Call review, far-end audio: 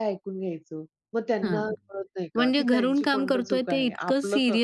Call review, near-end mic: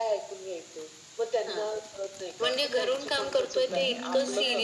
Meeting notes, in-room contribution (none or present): present